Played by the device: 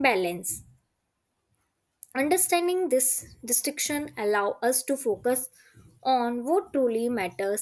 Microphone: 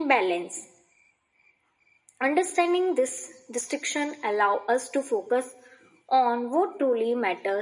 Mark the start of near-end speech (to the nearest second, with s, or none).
none